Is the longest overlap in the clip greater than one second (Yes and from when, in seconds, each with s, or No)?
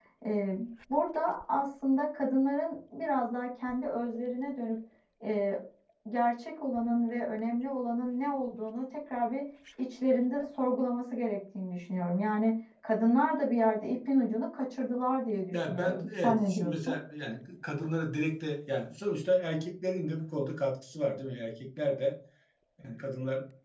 Yes, from 15.5 s